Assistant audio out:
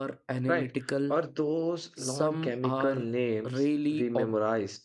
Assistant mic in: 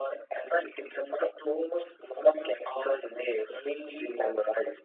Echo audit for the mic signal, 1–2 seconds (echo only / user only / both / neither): echo only